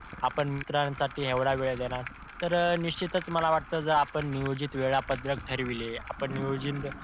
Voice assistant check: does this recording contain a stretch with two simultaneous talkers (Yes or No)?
No